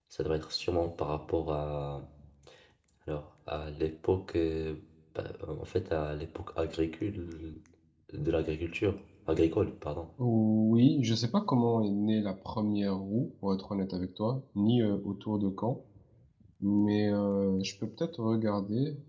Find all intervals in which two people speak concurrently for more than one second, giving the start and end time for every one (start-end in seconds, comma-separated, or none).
none